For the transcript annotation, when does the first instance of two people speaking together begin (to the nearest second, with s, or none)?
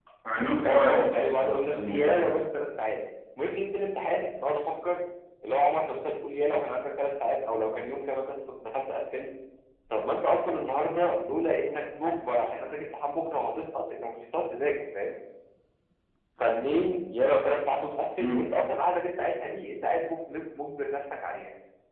1 s